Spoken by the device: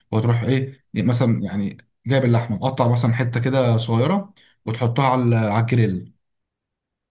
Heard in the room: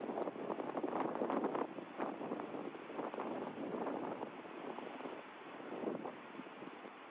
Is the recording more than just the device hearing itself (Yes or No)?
No